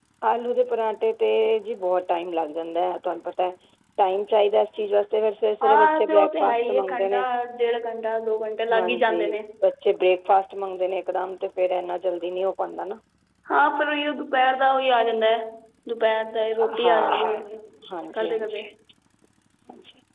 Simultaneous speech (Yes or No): Yes